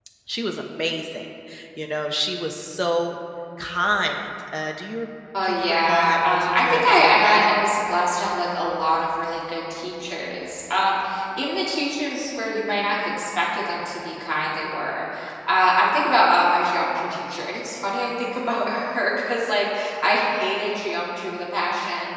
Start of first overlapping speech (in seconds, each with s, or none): 5.3 s